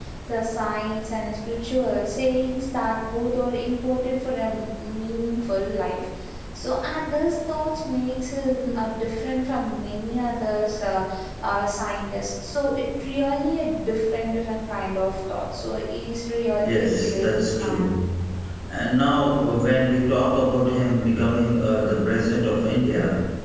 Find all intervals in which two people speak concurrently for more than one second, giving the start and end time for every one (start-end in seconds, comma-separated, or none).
16.6-17.9